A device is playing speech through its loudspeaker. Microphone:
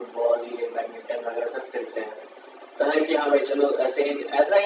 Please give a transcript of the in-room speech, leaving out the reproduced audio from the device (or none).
none